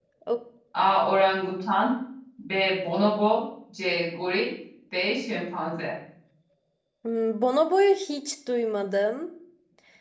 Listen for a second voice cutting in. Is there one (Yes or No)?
No